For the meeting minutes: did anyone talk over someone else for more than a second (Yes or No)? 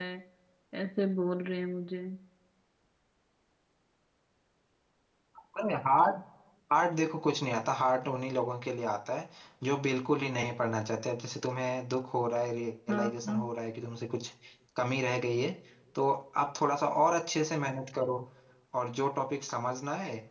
No